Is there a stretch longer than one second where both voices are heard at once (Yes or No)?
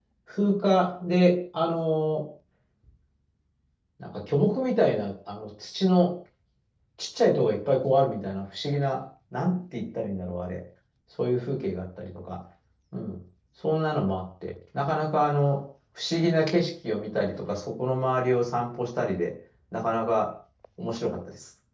No